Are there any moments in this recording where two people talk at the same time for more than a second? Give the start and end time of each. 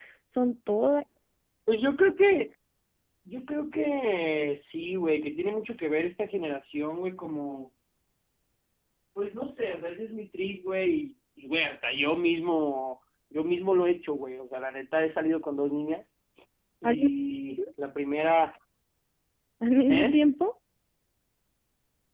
none

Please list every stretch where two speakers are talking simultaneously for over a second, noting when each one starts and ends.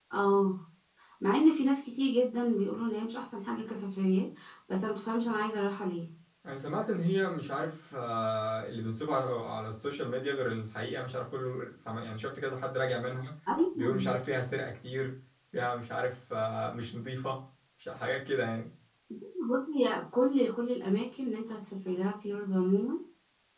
none

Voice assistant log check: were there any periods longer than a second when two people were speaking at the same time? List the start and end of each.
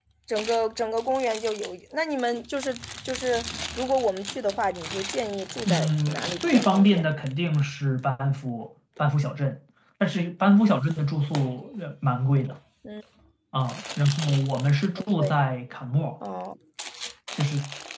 5.7-7.1

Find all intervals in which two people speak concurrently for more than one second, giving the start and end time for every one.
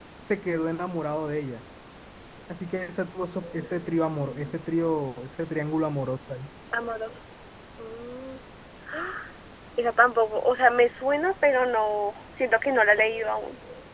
none

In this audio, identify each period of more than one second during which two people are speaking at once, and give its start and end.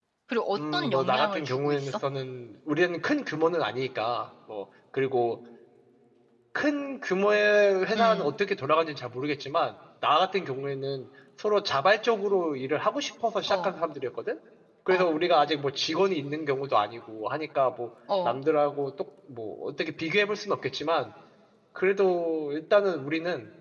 0.6-1.9

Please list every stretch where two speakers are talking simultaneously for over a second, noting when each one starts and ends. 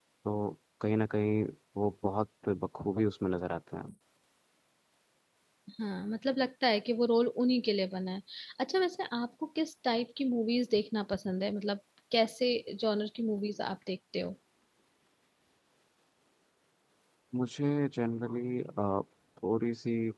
none

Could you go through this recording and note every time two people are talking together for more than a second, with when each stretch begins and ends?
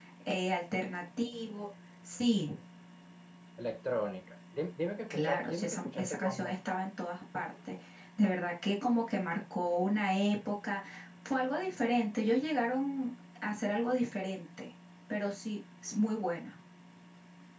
5.1-6.9

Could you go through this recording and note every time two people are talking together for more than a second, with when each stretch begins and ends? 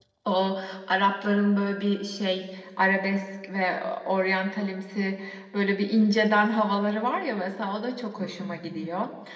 none

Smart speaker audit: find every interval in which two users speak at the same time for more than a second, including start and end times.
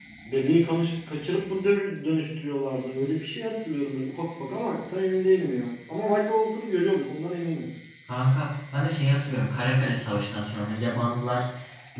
none

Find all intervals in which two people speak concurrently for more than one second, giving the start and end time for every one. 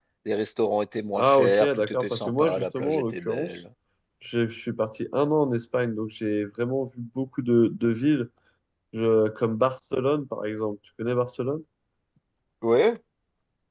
1.1-3.5

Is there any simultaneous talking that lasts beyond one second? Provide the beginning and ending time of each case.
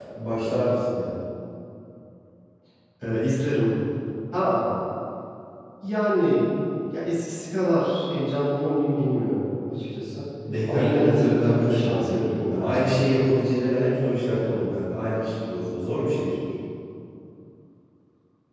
10.7-12.8

